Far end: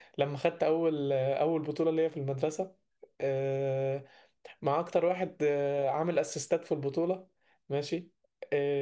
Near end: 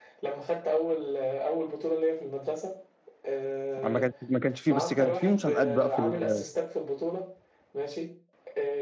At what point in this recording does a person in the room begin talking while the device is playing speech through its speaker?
3.8 s

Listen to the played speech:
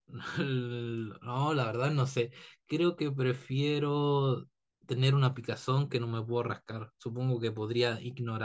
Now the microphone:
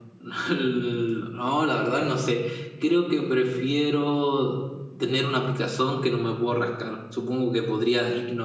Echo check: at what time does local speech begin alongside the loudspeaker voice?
none

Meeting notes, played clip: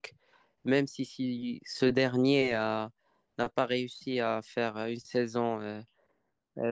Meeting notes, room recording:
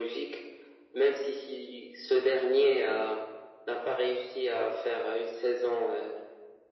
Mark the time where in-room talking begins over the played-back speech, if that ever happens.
none

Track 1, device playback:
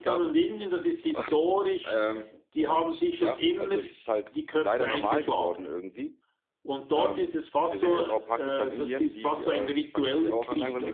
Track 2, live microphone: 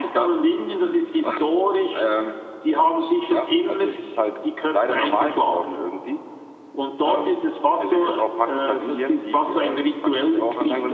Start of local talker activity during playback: none

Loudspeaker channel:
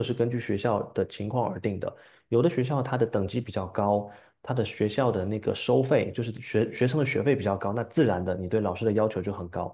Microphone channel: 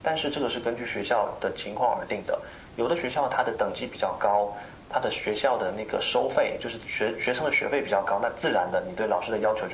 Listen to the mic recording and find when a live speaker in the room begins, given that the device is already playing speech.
none

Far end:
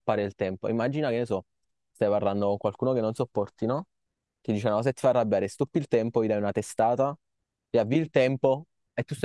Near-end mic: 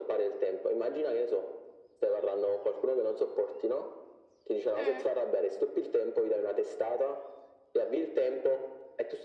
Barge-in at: 4.8 s

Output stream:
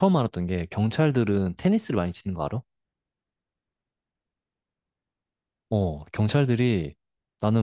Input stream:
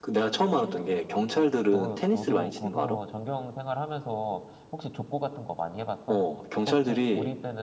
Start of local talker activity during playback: 1.7 s

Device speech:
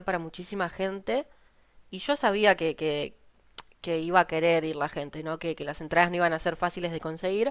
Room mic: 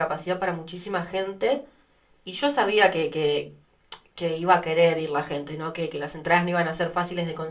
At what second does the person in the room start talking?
none

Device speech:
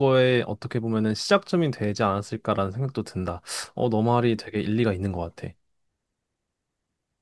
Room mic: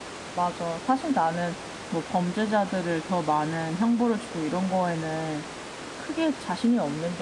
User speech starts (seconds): 0.3 s

